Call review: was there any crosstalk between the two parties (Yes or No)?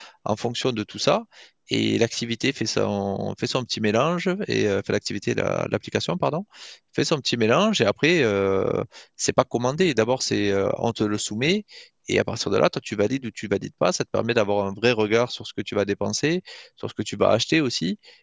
No